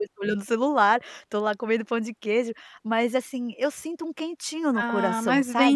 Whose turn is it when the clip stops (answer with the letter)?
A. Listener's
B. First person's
A